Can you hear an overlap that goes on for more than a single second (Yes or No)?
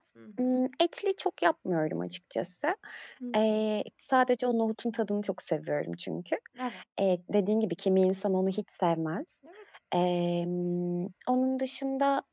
No